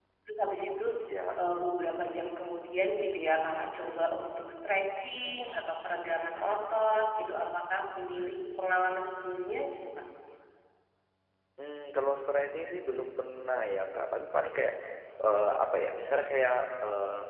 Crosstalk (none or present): none